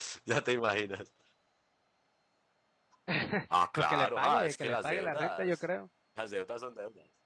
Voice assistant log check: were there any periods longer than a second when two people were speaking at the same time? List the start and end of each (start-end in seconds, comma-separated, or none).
3.8-5.6